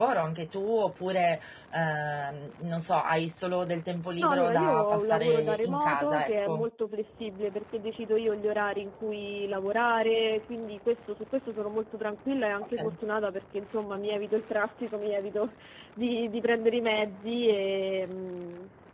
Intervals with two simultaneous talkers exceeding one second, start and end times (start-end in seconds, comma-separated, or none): 4.2-6.7